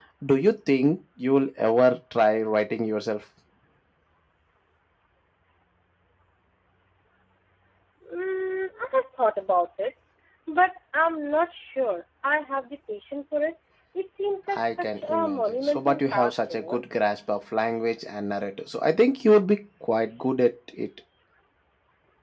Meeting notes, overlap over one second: present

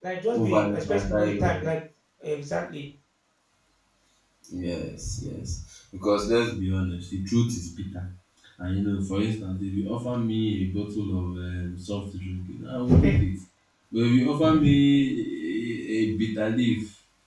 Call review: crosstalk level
present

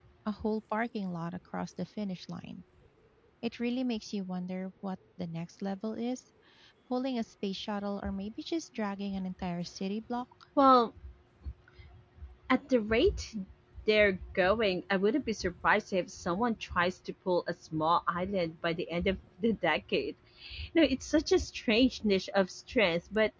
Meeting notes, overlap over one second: none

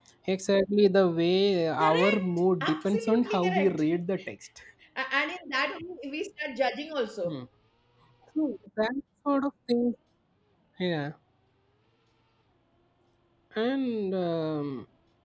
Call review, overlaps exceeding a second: present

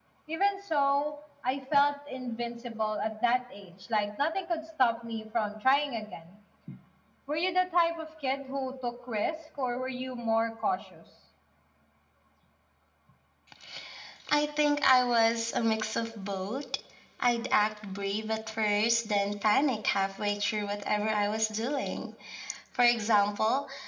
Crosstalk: none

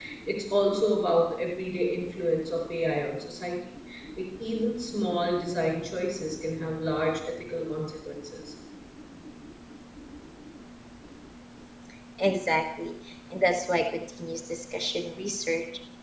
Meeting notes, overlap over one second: none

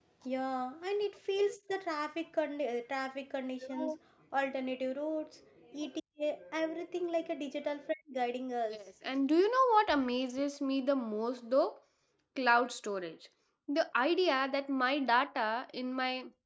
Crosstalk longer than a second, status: none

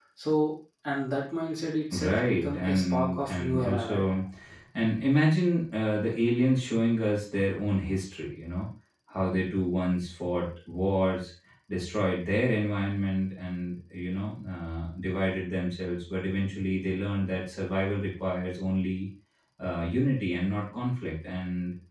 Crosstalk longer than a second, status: present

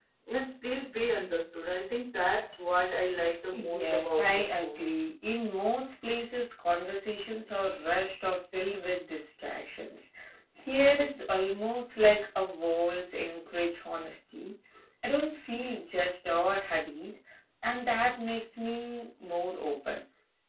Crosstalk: present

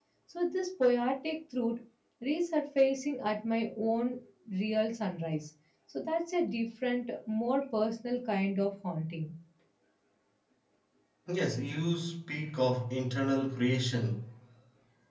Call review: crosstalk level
none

